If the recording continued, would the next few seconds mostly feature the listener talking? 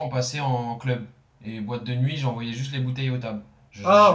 Yes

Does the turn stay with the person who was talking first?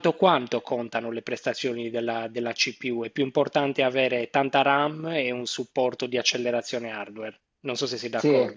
No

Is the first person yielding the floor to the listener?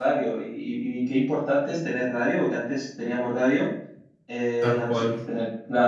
No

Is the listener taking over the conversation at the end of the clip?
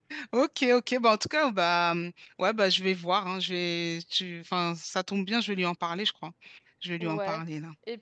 Yes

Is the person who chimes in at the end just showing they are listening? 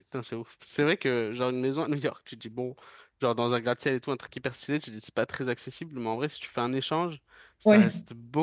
Yes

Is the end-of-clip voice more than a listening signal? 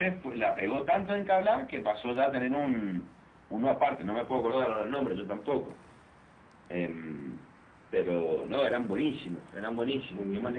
Yes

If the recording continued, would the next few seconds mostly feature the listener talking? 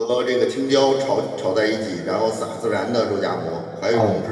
No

